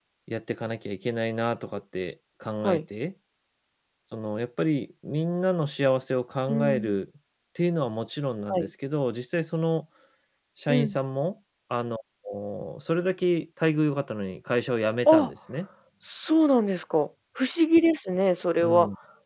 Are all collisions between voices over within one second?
Yes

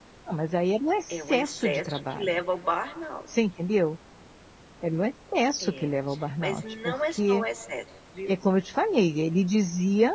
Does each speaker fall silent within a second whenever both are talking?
No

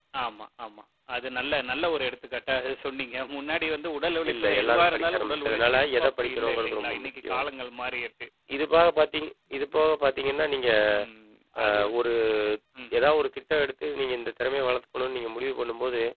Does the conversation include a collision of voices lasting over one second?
Yes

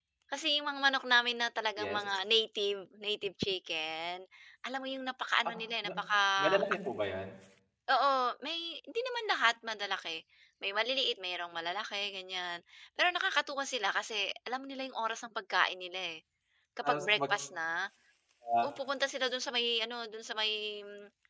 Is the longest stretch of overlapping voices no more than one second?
Yes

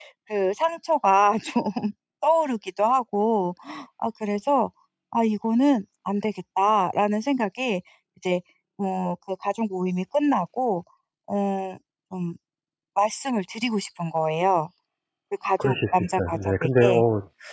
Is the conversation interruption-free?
No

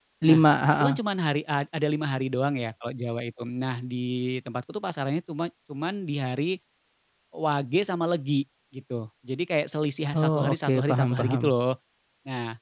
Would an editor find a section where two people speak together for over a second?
Yes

